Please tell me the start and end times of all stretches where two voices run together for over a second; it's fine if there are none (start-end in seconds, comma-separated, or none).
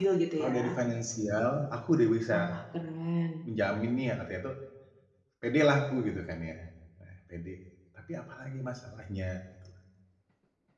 none